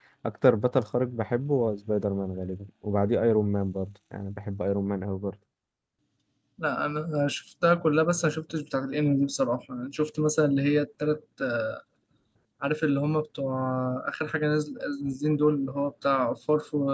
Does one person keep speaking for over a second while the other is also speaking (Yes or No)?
No